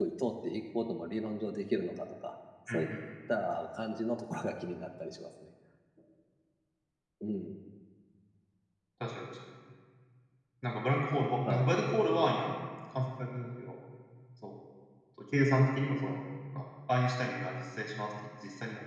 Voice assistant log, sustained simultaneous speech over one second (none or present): none